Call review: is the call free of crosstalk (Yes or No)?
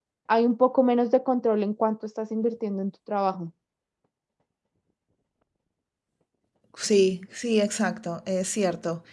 Yes